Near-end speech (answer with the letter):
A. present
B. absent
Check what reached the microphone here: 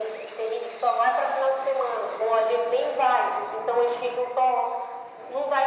B